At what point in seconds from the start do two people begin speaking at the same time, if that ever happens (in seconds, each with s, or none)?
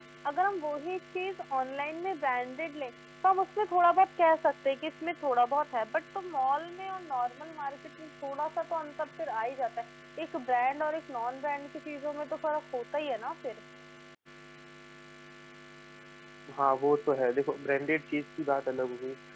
none